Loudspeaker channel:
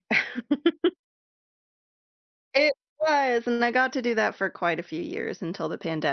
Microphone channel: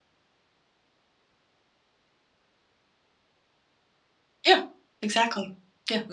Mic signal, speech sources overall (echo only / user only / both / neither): user only